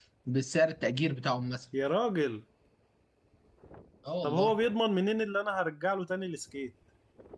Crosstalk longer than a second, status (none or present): none